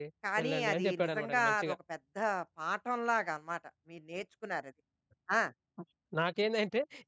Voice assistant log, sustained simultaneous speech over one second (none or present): present